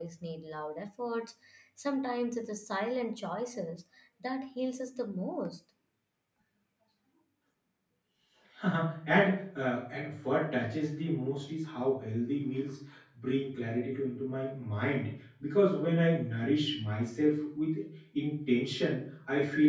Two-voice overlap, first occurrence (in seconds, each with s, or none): none